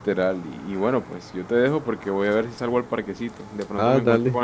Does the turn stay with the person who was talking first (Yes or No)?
Yes